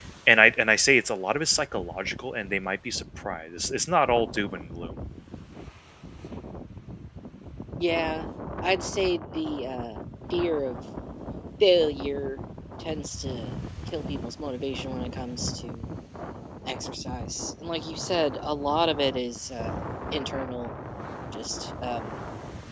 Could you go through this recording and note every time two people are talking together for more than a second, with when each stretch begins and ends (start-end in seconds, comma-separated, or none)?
none